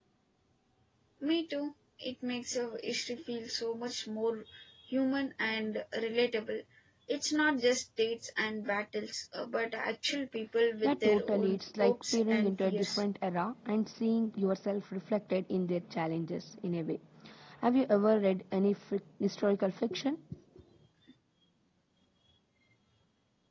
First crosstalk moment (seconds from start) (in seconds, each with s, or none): 10.8 s